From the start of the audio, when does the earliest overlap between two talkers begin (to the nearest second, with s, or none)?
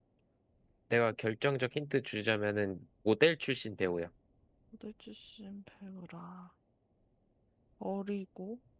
none